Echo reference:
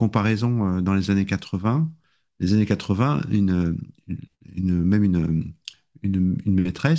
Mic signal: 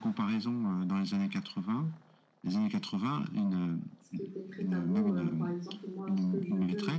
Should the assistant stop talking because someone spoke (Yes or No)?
Yes